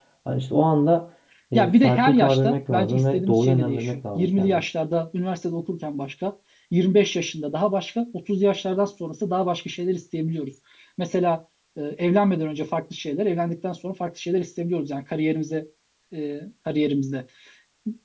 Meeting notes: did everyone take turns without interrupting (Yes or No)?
No